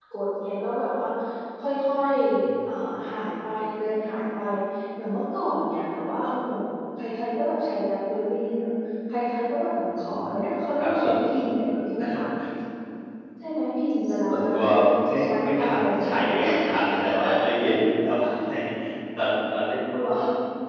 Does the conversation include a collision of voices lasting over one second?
Yes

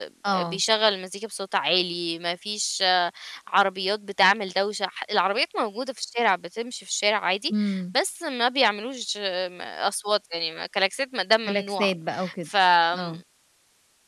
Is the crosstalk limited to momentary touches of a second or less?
Yes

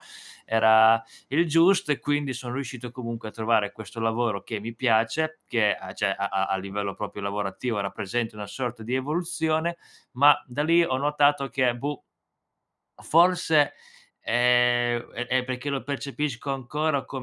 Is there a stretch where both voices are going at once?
No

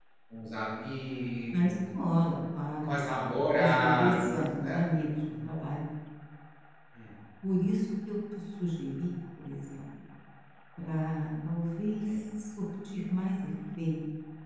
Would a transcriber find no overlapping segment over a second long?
No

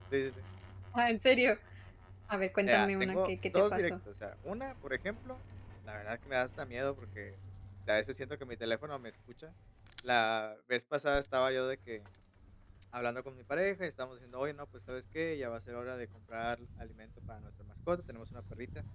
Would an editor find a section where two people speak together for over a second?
Yes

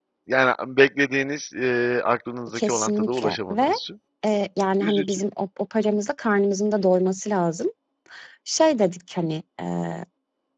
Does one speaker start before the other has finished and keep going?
Yes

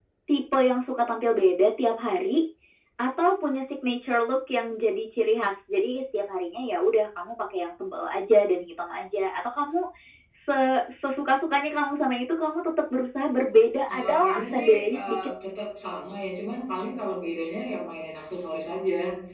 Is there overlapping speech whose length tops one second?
Yes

